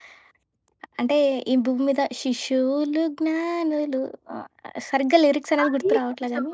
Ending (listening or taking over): taking over